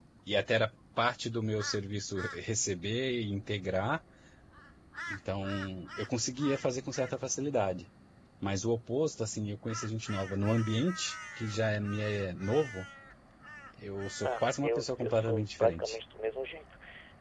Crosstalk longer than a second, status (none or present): present